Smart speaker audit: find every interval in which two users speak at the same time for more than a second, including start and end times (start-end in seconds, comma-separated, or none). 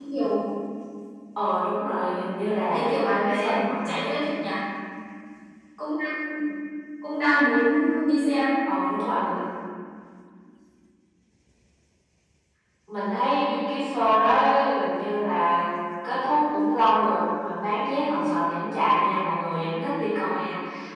2.7-4.1